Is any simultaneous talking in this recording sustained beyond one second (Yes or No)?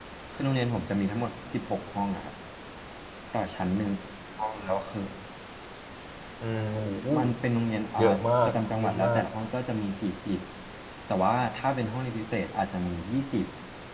Yes